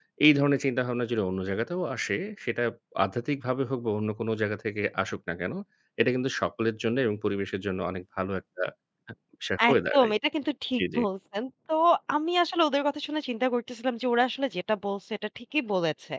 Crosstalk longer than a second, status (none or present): none